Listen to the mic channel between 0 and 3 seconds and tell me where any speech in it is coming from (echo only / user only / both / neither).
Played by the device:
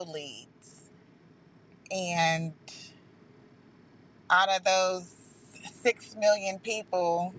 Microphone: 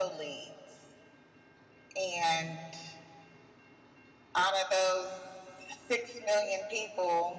echo only